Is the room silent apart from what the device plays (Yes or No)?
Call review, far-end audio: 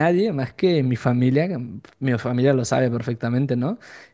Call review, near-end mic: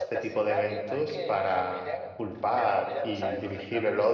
No